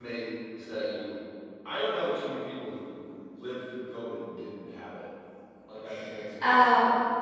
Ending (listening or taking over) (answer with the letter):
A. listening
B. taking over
B